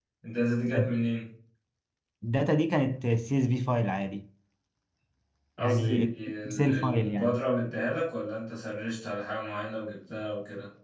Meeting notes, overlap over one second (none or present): present